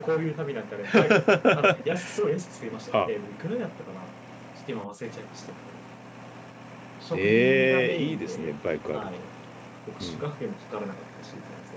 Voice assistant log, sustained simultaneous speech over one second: present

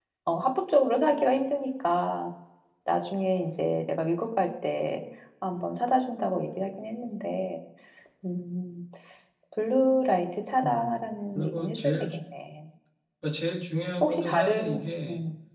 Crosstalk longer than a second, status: present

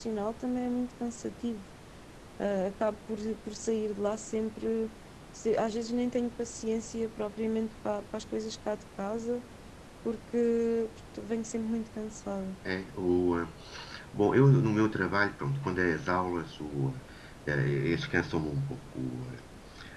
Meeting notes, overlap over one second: none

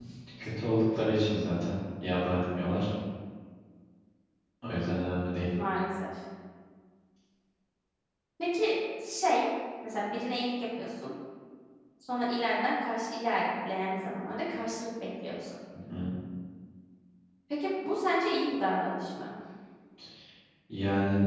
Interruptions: none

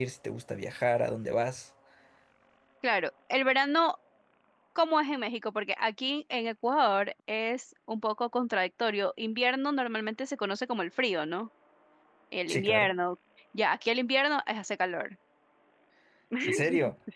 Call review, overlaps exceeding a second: none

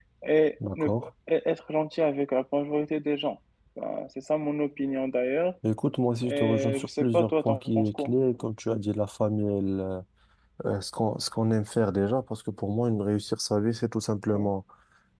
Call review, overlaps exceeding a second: present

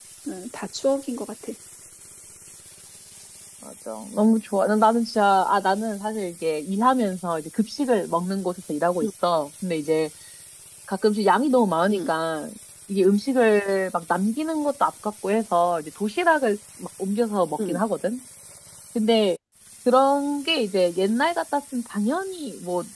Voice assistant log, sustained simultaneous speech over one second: none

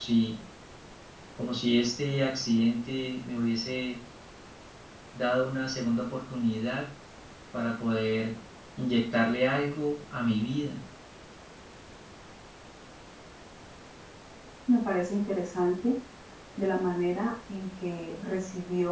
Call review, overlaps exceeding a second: none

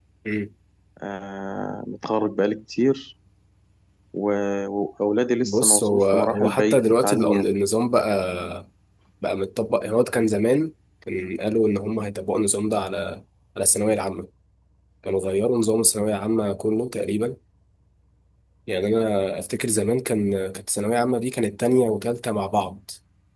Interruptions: present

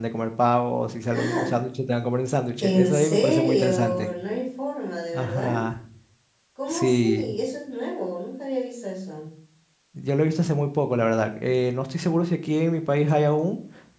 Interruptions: present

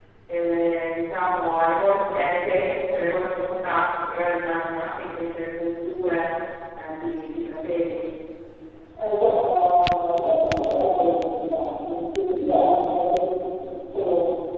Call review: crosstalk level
none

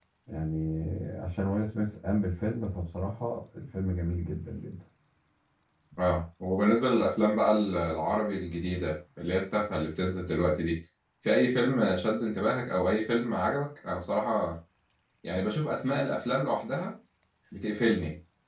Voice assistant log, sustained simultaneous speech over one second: none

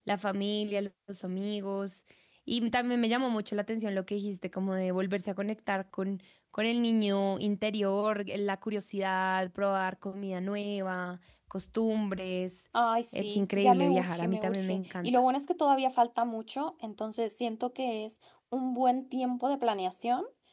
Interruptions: present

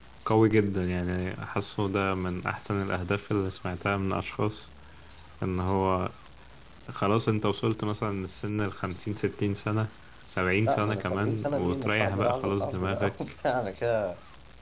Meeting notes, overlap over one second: present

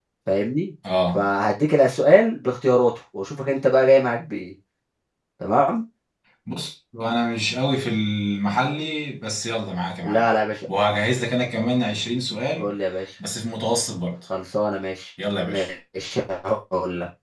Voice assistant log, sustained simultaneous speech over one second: none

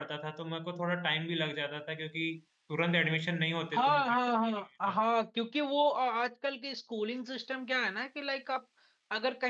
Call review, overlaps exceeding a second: none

